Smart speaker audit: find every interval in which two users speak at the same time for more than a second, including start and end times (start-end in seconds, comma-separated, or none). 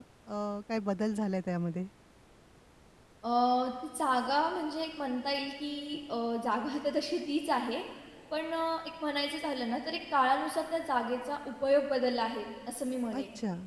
none